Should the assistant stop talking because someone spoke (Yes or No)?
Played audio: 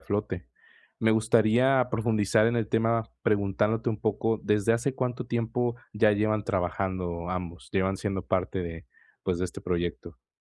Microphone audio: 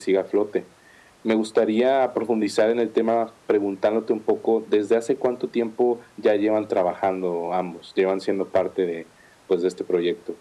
No